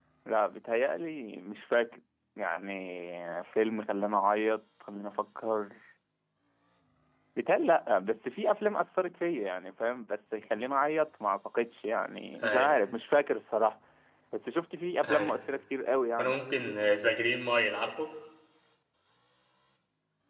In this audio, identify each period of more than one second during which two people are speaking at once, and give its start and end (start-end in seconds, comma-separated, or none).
none